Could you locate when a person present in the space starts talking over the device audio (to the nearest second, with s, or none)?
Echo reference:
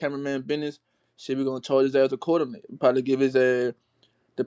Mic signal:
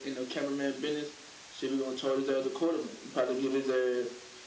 none